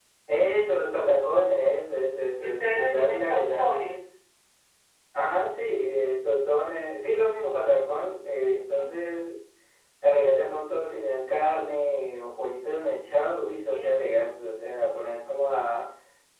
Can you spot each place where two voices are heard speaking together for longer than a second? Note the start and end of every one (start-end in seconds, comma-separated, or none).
2.4-3.7